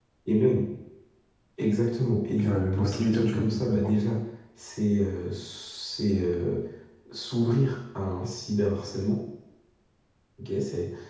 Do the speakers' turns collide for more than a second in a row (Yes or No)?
Yes